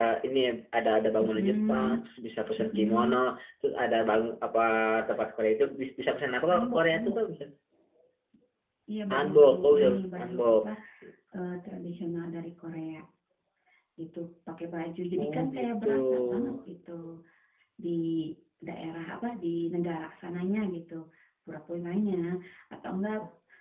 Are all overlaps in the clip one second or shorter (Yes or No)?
No